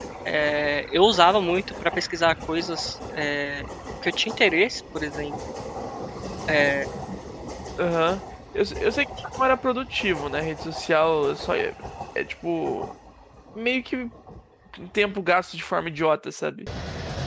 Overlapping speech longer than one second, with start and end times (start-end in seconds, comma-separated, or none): none